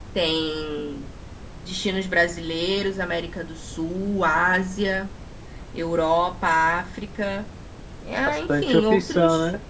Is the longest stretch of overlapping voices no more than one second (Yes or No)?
No